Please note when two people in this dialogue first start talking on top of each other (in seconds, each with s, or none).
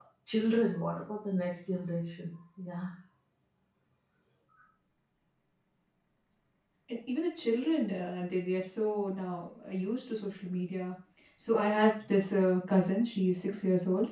none